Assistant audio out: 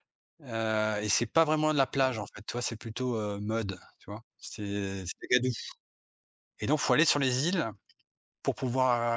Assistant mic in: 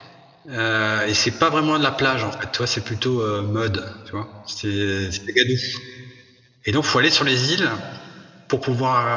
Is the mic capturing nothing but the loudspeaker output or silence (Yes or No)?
Yes